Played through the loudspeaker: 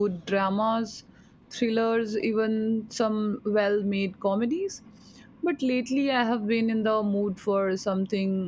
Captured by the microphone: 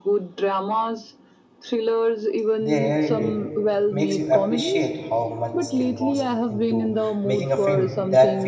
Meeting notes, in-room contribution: present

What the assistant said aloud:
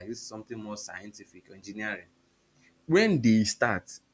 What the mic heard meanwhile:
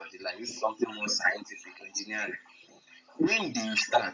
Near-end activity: none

